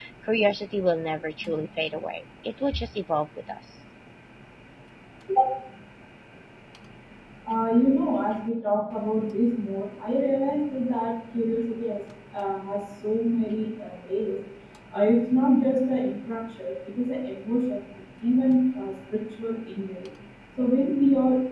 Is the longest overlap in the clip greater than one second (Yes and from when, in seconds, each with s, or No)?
No